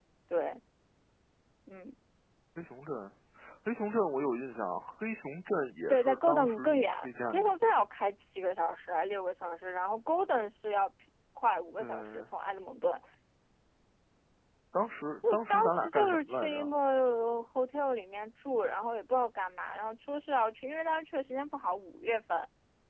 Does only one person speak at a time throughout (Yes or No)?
No